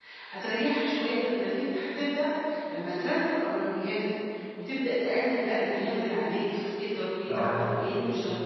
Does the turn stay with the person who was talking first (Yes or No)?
Yes